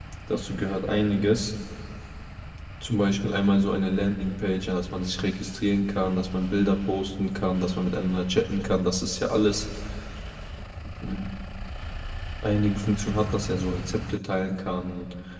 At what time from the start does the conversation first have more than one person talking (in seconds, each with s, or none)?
none